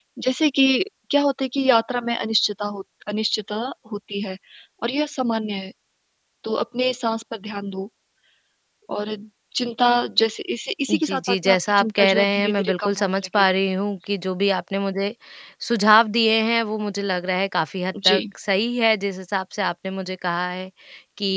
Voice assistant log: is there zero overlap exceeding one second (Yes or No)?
No